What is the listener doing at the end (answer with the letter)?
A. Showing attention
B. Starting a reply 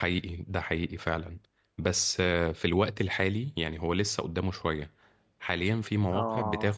A